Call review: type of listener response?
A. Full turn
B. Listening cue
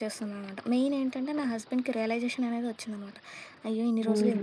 A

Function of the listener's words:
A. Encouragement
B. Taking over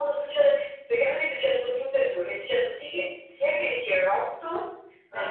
A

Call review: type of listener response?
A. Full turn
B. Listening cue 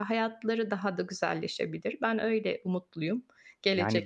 A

